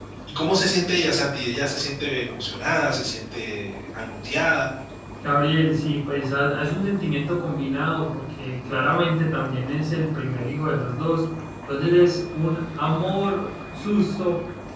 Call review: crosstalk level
none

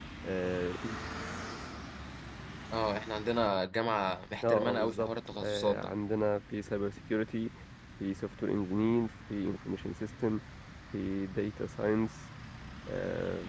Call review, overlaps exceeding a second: present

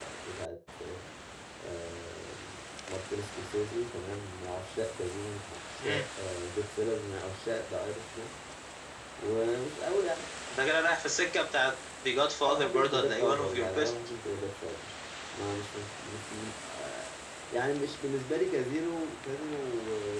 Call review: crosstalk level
present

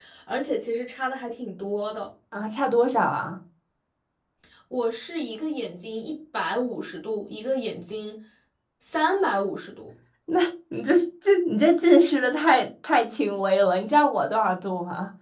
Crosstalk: none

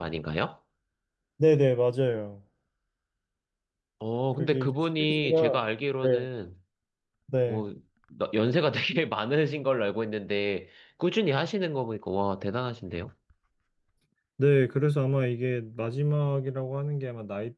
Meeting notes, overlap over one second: present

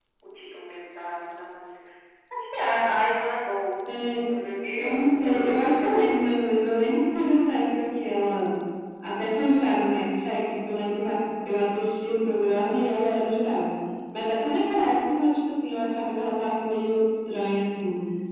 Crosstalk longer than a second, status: present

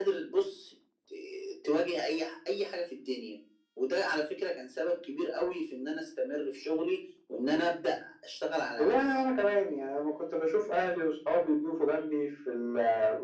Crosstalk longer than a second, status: none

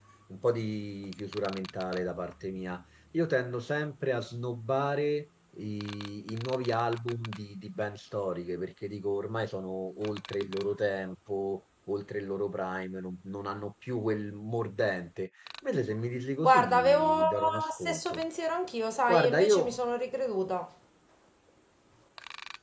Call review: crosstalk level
present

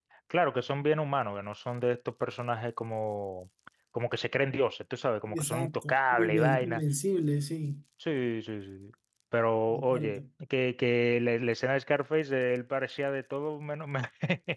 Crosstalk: present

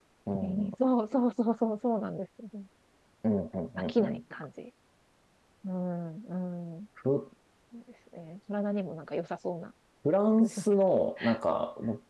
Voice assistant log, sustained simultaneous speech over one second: none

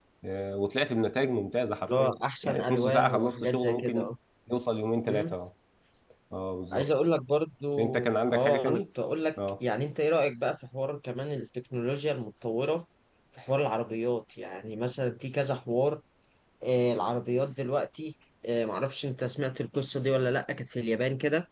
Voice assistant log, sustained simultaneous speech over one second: present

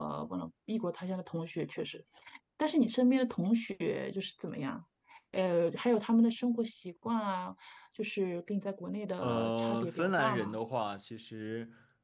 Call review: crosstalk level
present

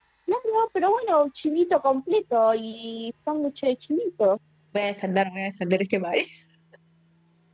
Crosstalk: none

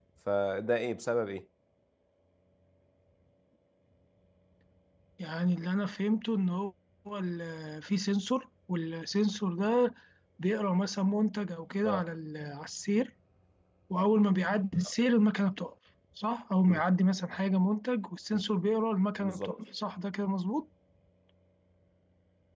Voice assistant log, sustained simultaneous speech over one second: none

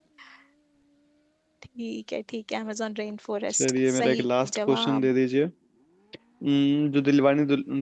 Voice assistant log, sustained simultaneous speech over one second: present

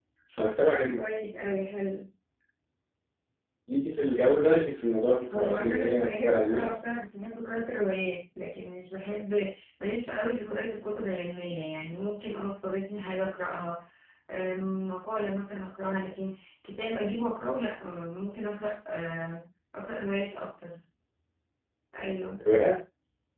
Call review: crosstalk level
present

